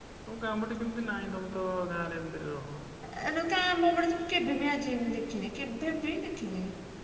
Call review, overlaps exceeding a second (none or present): none